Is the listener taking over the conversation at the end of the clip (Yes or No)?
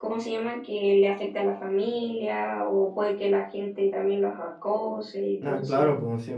Yes